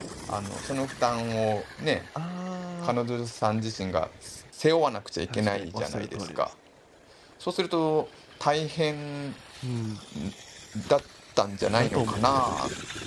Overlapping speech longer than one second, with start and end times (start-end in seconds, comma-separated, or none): 5.3-6.5